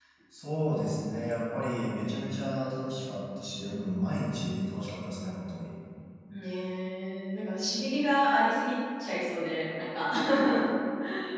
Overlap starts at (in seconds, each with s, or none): none